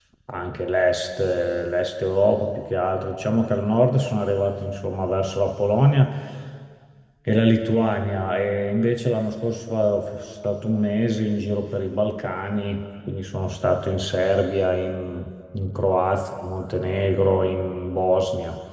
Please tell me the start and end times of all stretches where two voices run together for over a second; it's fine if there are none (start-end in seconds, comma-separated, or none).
none